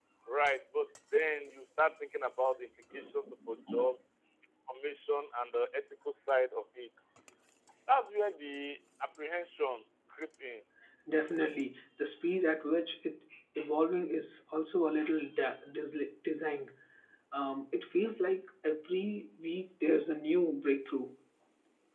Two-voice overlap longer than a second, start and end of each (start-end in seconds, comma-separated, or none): none